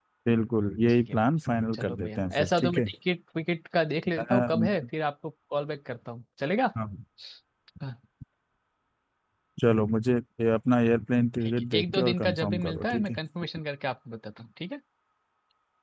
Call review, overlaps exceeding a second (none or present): present